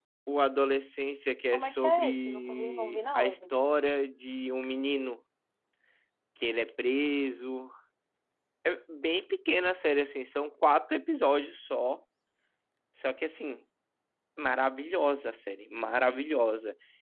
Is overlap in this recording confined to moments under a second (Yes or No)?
No